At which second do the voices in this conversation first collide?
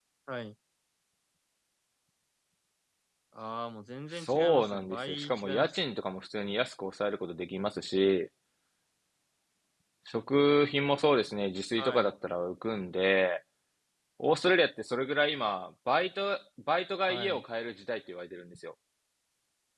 4.1 s

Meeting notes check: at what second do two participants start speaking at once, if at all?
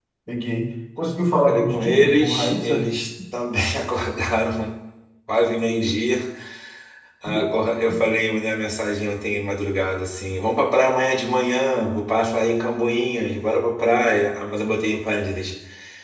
1.5 s

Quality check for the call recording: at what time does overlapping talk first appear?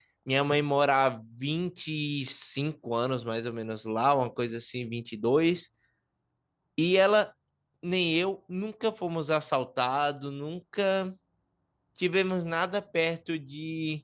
none

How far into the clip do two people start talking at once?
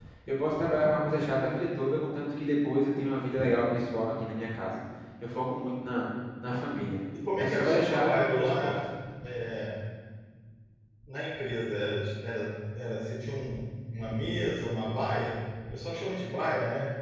7.3 s

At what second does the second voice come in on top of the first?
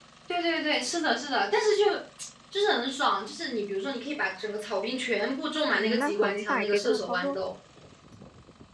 5.7 s

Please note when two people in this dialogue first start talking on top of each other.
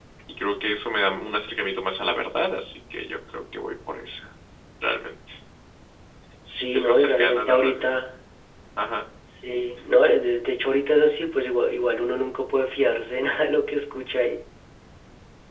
6.7 s

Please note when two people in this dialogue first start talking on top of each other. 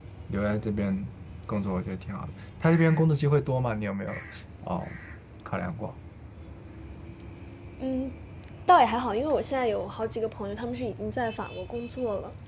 none

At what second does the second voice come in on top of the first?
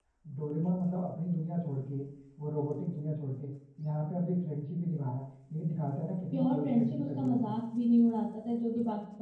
6.3 s

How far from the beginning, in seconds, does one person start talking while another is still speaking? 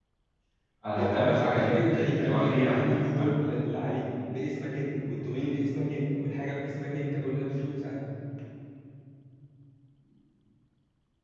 0.9 s

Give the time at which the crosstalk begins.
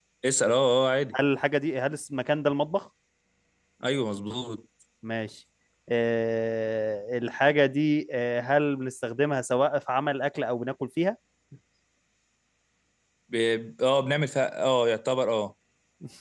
none

